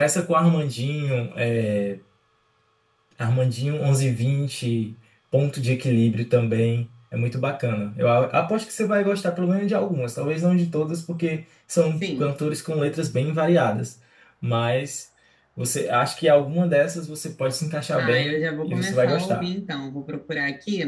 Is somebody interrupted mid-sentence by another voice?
Yes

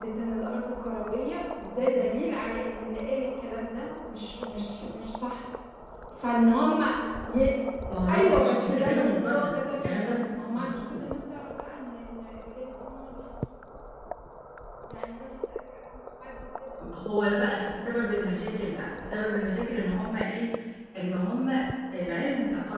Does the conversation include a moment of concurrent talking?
Yes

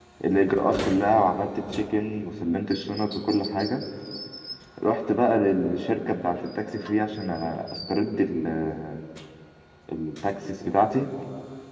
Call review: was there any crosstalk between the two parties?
No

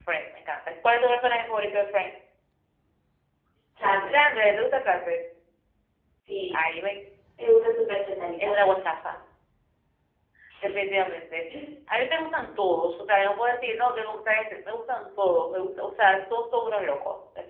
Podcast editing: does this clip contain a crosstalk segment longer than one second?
No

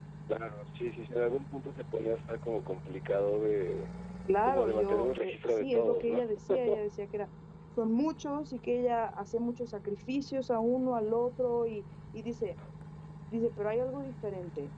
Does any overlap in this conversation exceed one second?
Yes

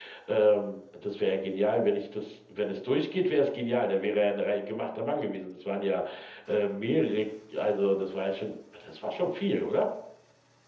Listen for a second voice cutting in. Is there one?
No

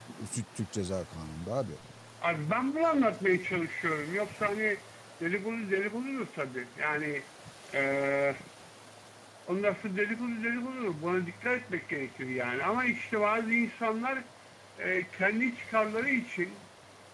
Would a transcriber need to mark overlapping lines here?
No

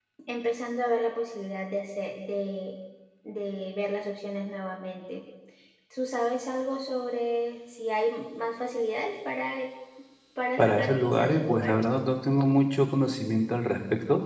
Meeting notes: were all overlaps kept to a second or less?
No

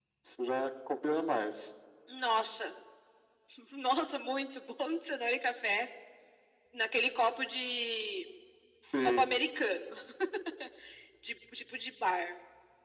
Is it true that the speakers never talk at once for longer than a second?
Yes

